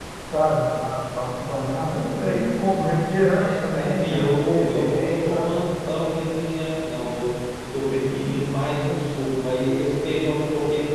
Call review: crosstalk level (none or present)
present